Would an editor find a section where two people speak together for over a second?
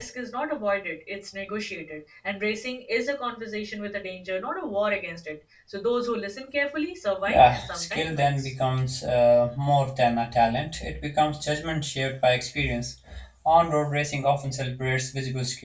Yes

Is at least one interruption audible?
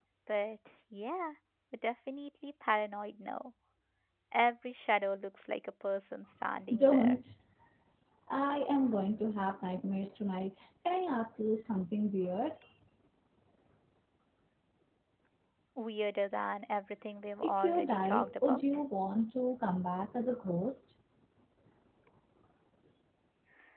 Yes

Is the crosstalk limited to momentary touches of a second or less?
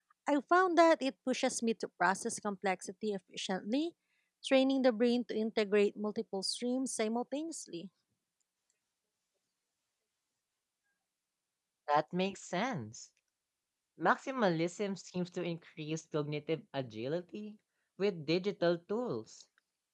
Yes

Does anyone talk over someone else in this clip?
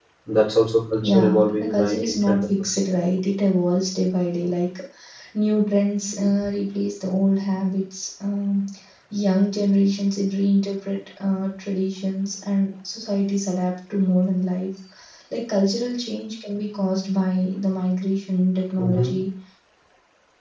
Yes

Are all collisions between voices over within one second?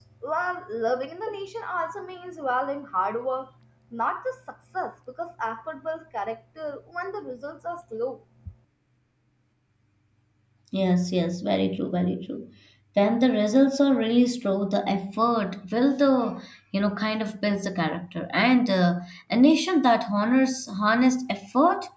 Yes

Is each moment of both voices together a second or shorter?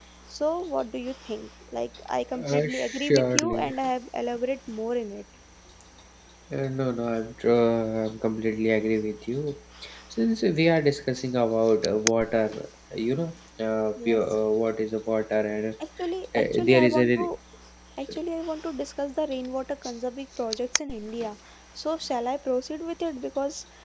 No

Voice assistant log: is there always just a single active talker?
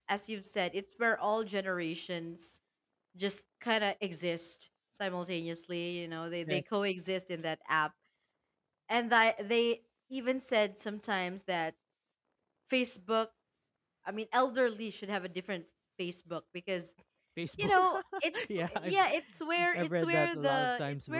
No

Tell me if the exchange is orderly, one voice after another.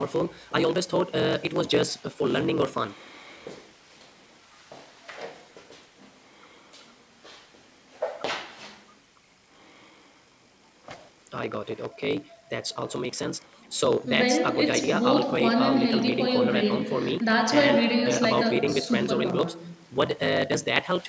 No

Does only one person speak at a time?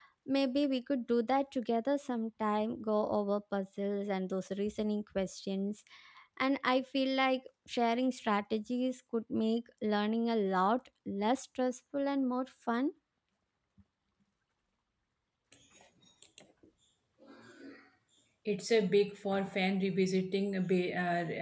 Yes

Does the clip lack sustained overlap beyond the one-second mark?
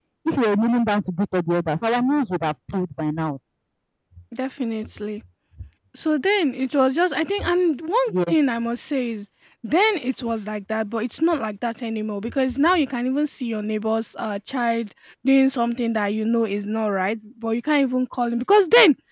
Yes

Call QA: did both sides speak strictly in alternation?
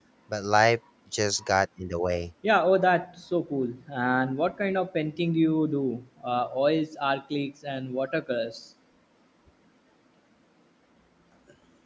Yes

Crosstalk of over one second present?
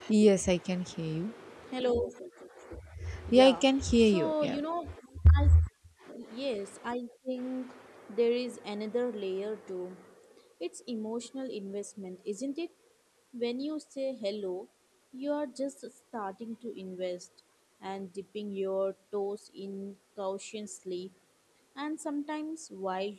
Yes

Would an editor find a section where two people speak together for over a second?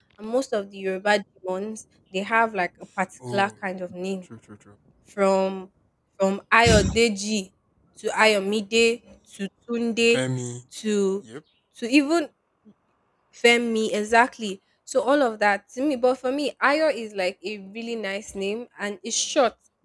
No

